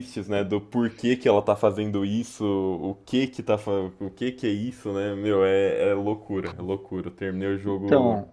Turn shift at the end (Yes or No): No